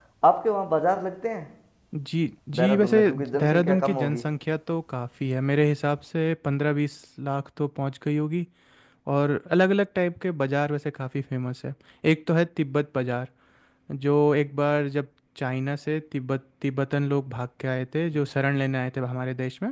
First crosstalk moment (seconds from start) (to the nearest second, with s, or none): 3 s